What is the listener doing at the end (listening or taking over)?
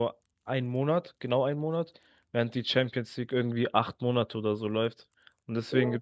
listening